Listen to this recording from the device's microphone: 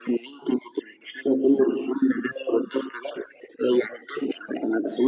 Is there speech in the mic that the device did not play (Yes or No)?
No